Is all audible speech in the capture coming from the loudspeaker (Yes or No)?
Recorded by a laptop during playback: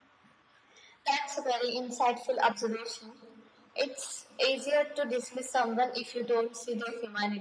Yes